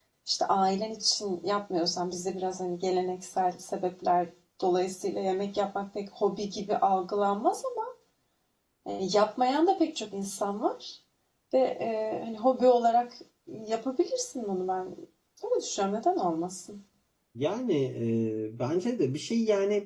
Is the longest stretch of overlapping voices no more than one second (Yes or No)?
Yes